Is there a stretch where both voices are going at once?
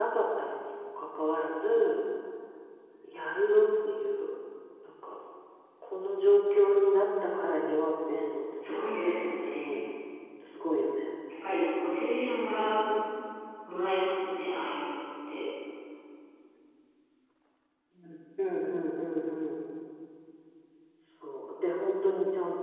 Yes, from 8.6 s

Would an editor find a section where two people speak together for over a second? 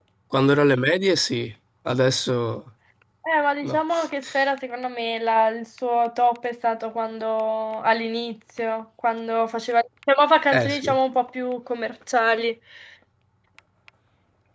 No

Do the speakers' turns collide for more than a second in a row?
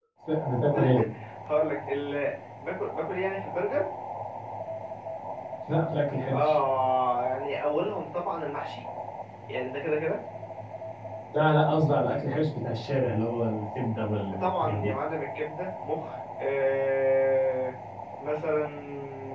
No

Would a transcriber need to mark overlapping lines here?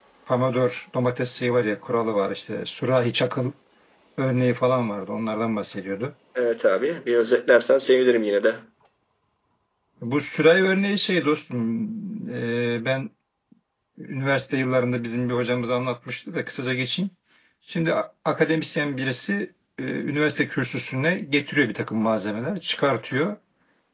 No

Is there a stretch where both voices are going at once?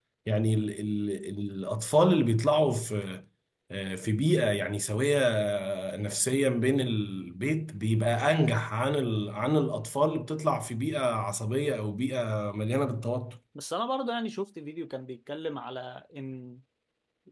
No

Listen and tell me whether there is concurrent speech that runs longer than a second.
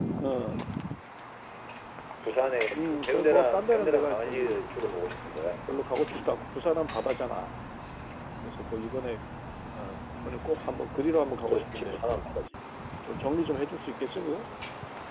Yes, from 2.8 s

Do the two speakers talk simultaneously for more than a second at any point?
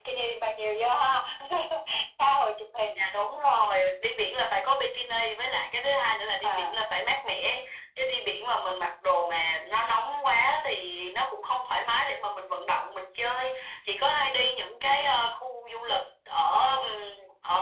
No

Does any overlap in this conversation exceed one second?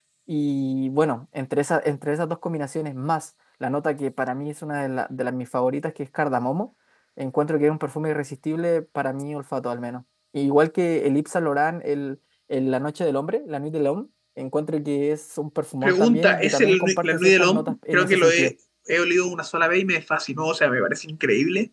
Yes, from 15.8 s

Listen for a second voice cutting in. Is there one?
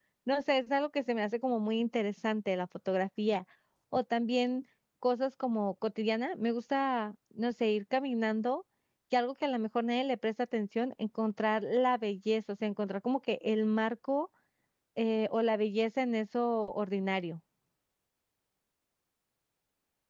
No

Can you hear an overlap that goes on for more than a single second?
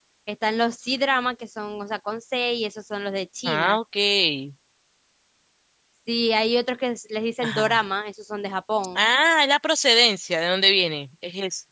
No

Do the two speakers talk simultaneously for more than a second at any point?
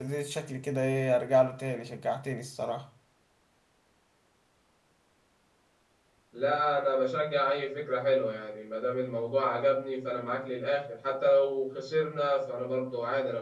No

